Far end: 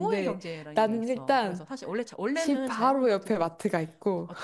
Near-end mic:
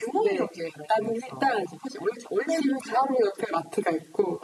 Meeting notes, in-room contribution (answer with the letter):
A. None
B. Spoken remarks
A